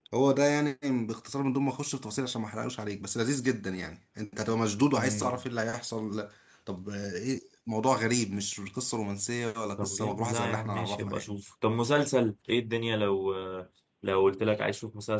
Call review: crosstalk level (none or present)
present